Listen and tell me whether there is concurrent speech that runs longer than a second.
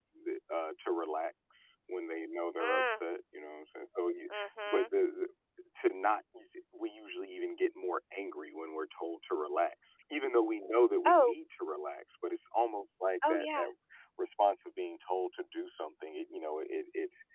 No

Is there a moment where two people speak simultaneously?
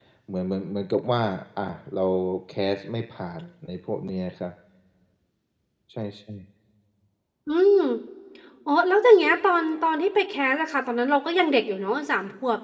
No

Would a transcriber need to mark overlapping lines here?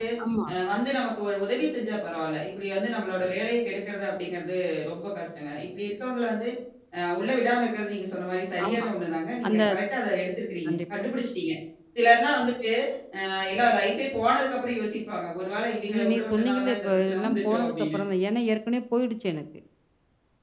Yes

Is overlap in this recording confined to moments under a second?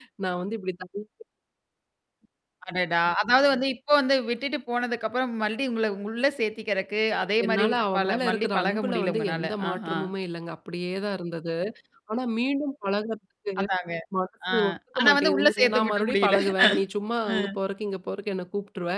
No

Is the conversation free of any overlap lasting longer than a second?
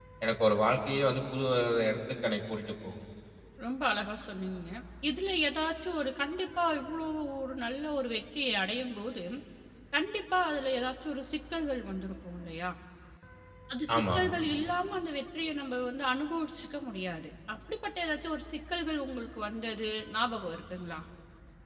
Yes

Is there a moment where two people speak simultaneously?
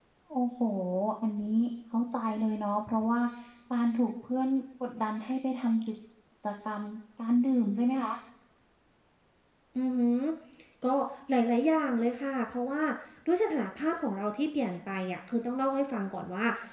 No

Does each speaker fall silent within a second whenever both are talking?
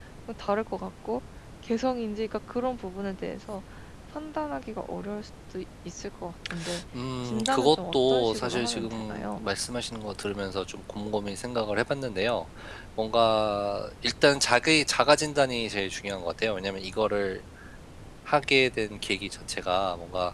No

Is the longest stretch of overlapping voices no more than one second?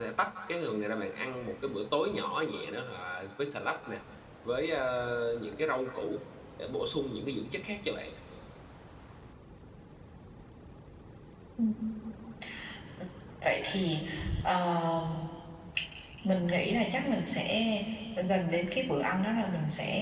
Yes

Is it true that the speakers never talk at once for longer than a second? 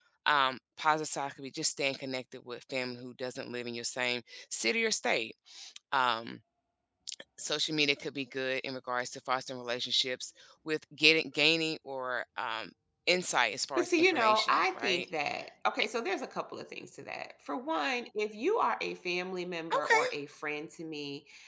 No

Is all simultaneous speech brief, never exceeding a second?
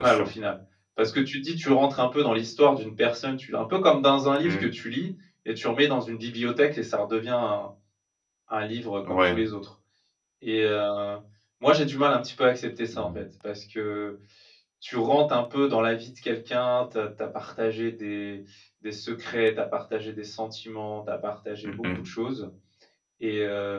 Yes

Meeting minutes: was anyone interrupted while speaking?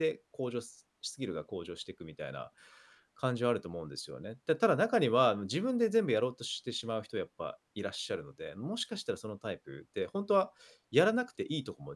No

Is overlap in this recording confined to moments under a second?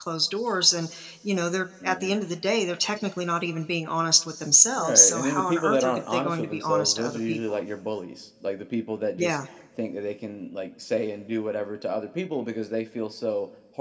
No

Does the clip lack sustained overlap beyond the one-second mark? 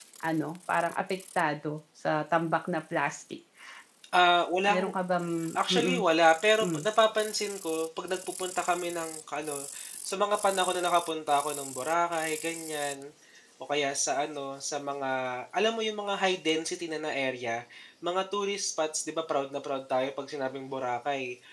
Yes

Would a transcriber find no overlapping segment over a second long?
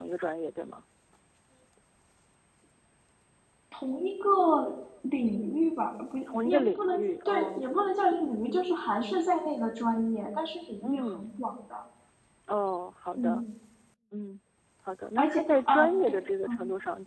No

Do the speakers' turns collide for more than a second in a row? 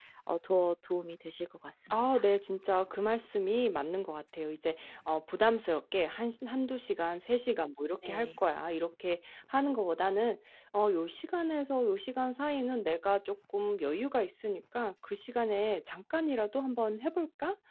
No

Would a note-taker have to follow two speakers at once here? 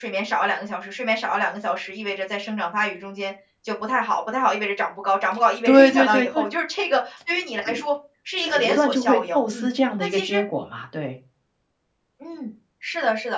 Yes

